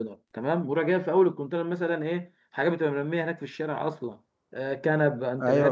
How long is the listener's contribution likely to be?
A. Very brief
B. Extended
A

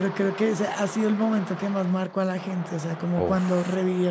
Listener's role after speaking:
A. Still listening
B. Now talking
A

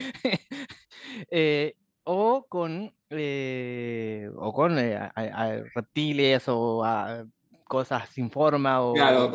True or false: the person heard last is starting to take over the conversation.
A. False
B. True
B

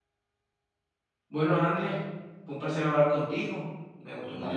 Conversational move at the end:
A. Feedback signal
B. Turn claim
A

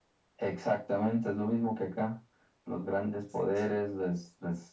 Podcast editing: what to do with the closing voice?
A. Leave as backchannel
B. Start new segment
A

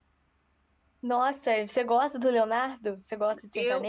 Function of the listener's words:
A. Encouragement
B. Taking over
B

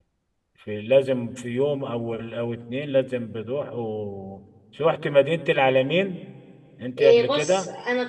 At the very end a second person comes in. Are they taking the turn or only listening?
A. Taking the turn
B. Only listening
A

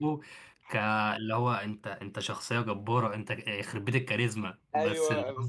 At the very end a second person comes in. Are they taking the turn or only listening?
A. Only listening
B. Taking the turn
B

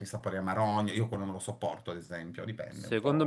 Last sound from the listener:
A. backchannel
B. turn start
B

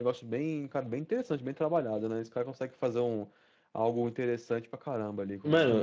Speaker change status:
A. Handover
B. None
A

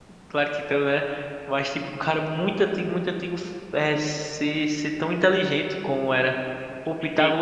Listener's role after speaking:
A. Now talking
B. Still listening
B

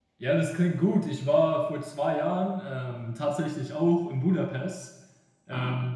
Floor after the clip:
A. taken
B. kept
B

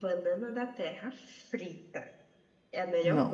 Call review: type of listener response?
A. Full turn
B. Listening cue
B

